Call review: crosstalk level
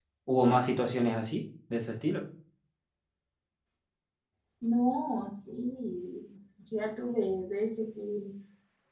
none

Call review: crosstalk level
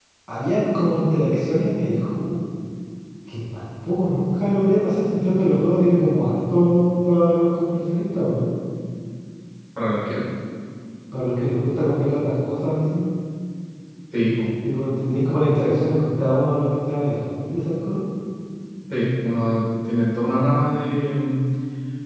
none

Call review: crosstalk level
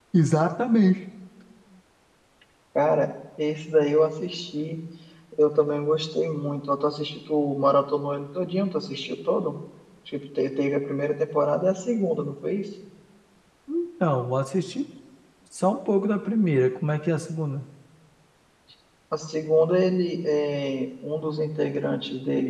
none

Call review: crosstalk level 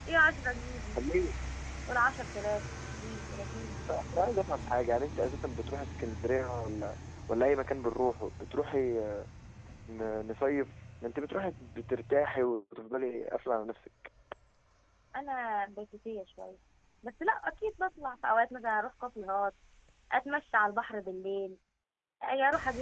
none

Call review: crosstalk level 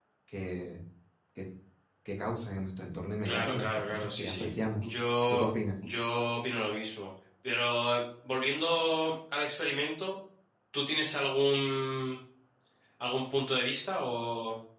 present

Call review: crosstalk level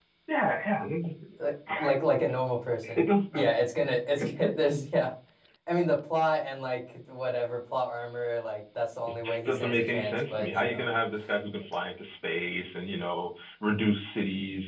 present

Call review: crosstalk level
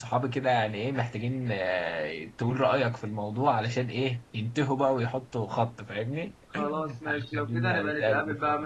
present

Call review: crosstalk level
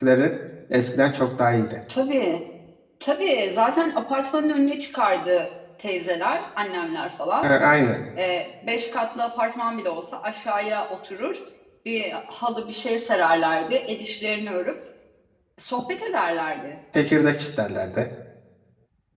none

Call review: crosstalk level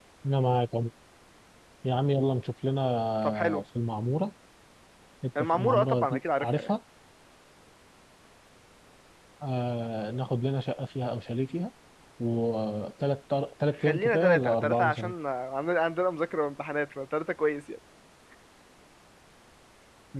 present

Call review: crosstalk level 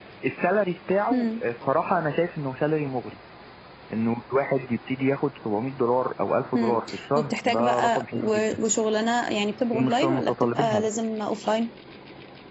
present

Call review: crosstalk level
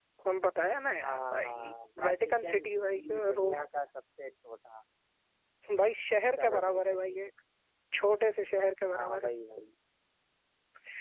present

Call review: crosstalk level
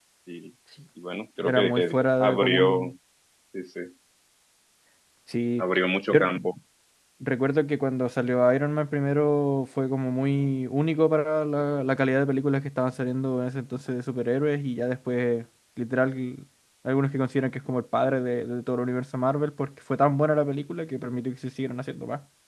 present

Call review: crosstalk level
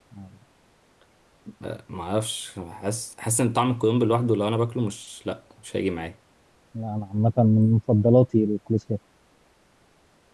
none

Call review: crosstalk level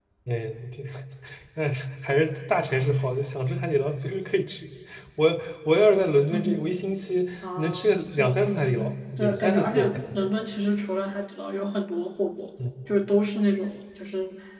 present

